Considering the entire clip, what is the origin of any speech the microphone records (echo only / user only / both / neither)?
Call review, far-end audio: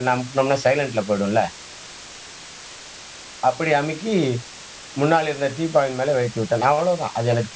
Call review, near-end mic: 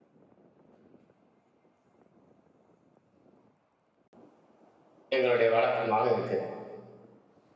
user only